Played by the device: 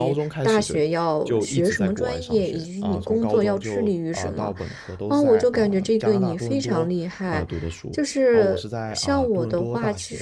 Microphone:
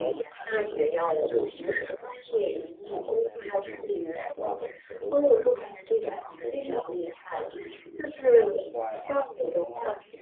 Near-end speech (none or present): none